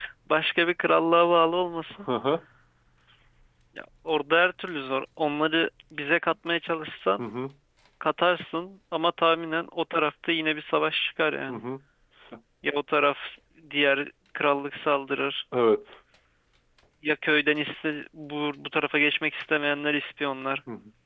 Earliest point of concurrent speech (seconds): none

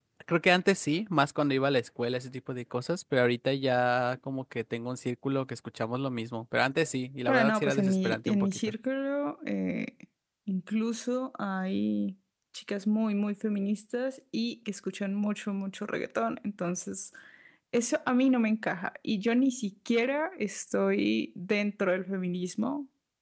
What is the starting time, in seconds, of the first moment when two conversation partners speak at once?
7.3 s

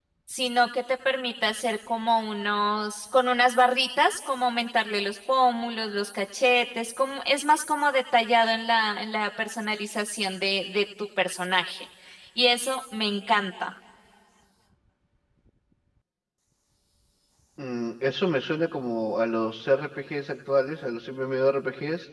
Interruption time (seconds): none

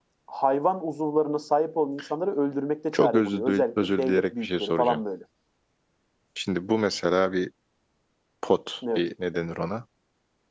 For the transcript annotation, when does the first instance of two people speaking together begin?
2.9 s

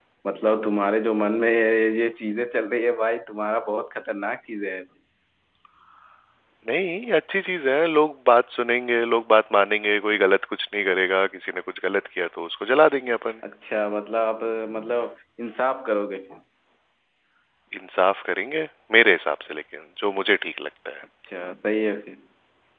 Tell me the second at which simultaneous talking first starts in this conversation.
none

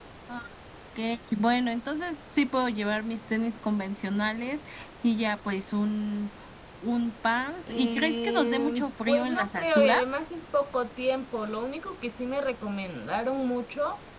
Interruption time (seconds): 7.7 s

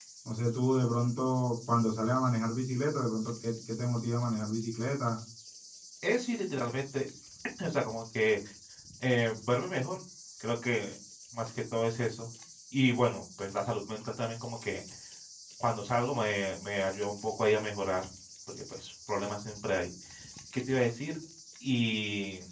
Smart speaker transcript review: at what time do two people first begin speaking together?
none

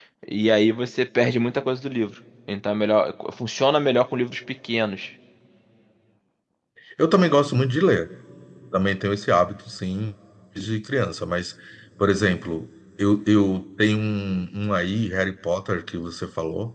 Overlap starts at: none

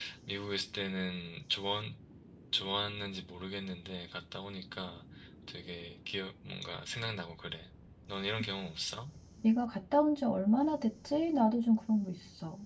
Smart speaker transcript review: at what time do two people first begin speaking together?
none

